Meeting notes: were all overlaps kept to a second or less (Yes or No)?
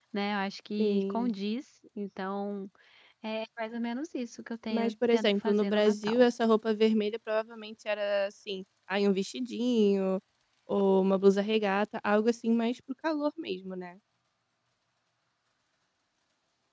No